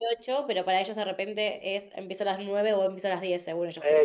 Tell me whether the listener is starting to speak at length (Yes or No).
Yes